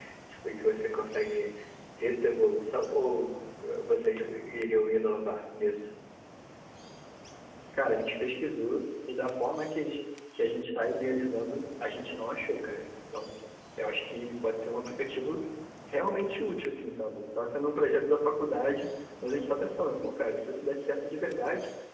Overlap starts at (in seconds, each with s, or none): none